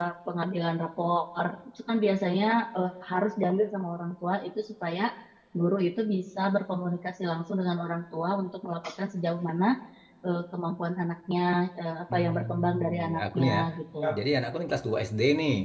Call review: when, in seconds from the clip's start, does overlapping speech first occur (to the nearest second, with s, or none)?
12 s